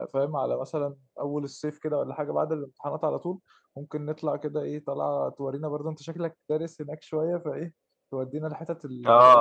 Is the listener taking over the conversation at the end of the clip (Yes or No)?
Yes